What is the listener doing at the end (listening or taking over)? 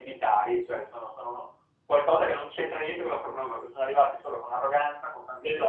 listening